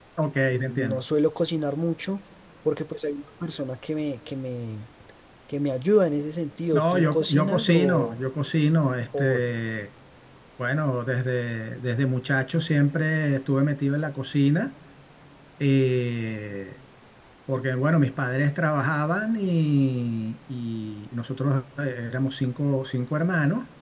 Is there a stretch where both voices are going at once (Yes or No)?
Yes